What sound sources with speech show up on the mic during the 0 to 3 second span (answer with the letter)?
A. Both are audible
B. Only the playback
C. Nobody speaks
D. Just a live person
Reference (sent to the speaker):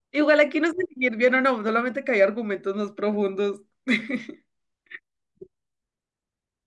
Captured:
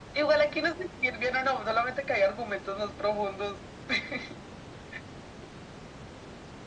B